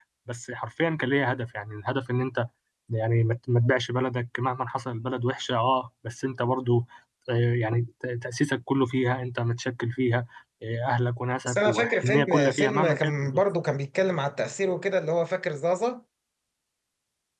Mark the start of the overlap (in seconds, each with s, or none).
11.4 s